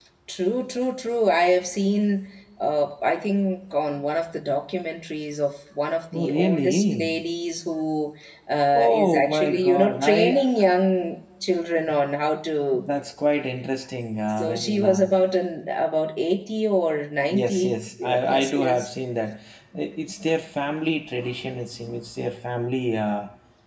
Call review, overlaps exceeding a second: present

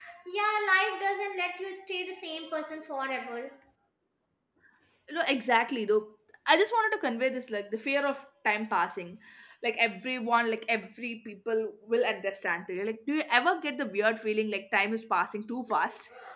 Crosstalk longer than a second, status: none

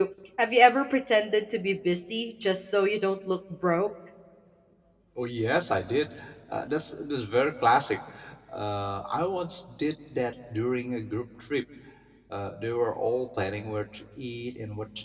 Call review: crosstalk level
none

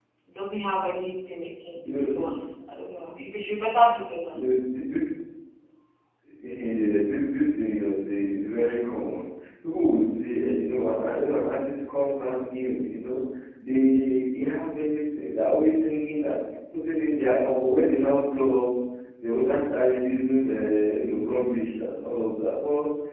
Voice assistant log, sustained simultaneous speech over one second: none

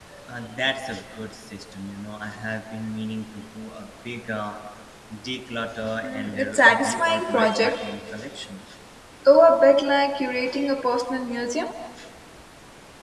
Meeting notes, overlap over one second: present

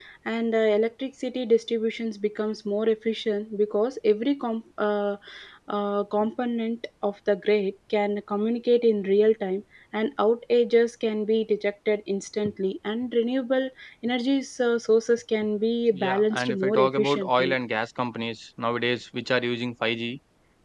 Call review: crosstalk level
present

